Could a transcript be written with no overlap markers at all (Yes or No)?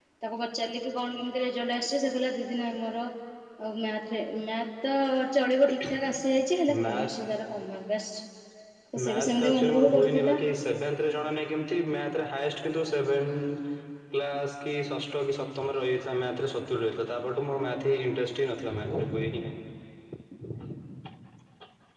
No